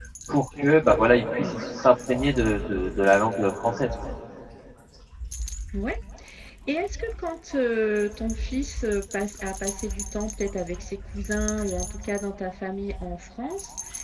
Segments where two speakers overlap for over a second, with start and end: none

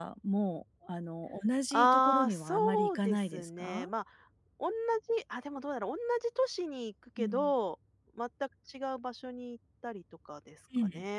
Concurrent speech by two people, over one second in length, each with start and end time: 1.7-3.9

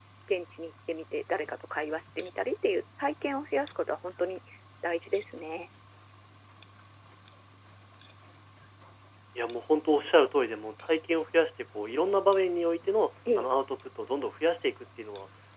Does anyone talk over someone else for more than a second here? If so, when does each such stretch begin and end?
none

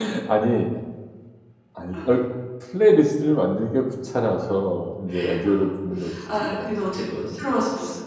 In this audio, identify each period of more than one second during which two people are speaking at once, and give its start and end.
none

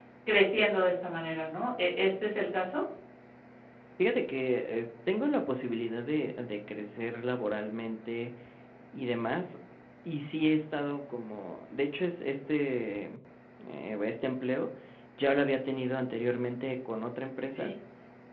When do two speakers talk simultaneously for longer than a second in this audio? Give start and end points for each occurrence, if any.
none

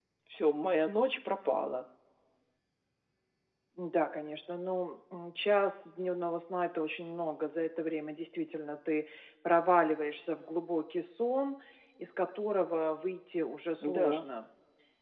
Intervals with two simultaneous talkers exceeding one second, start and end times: none

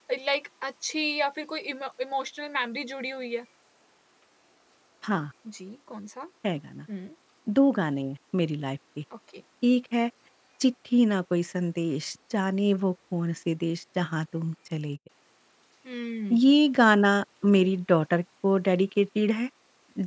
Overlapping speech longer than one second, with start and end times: none

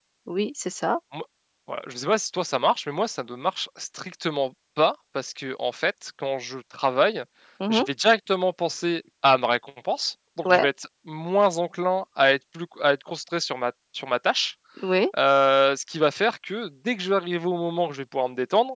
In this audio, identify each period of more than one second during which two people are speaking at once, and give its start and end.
none

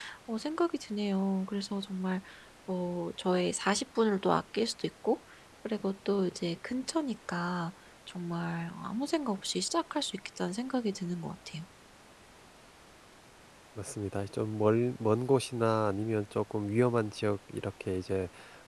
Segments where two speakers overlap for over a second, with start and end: none

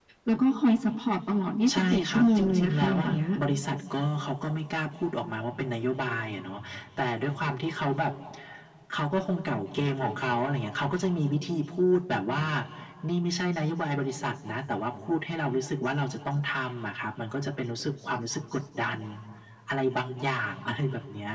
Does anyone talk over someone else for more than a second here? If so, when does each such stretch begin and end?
1.7-3.2

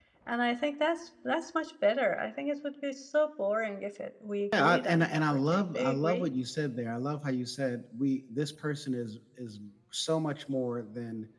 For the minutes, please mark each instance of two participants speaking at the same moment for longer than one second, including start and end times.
4.5-6.3

